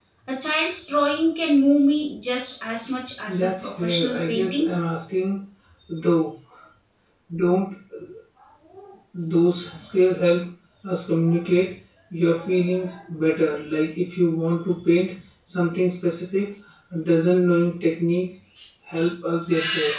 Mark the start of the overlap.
3 s

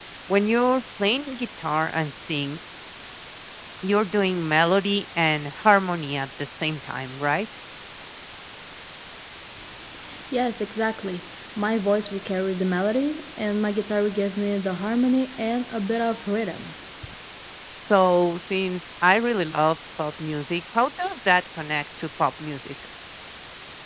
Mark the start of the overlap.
none

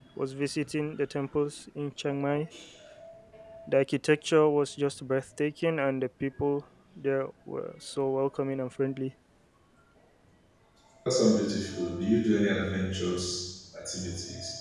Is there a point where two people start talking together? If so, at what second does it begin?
none

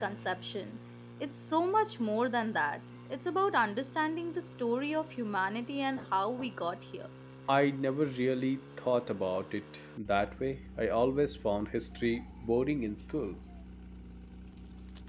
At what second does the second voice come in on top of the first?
none

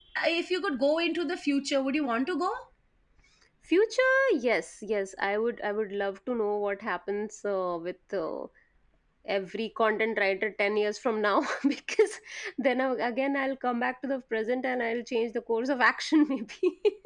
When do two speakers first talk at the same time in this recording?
none

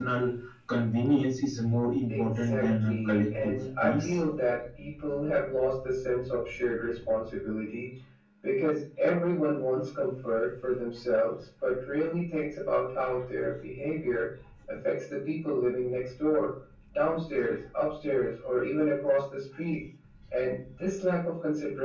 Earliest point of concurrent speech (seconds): 2 s

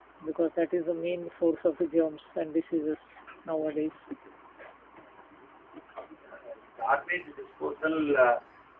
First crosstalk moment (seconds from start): none

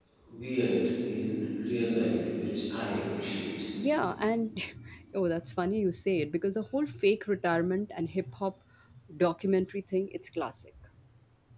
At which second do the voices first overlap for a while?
none

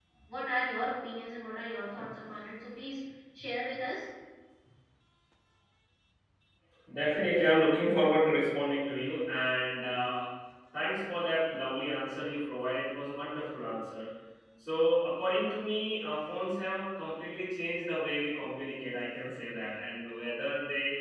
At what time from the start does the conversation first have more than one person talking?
none

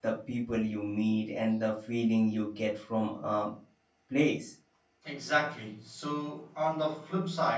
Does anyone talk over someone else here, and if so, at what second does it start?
none

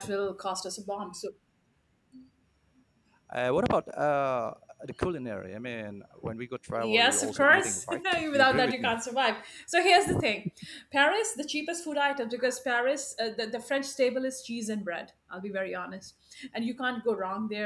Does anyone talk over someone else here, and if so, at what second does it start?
7 s

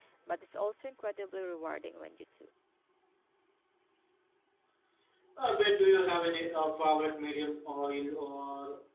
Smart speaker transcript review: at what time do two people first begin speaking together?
none

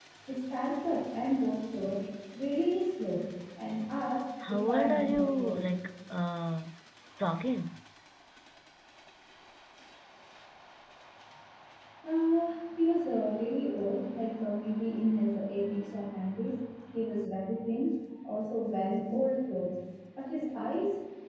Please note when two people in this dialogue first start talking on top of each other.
4 s

